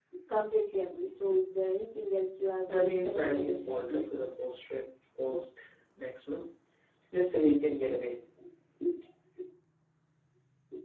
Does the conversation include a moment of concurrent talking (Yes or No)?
Yes